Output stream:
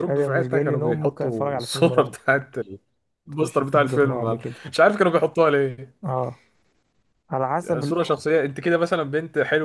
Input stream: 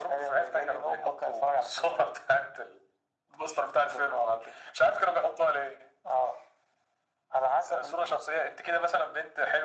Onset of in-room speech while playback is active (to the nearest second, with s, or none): none